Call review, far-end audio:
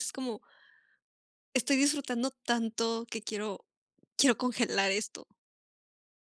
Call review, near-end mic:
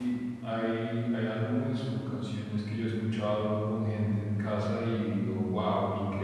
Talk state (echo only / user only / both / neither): user only